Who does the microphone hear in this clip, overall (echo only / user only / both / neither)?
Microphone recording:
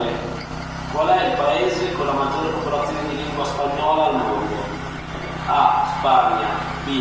echo only